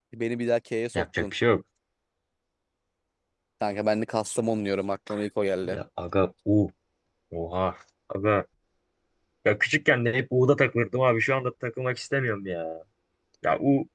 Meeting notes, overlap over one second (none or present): none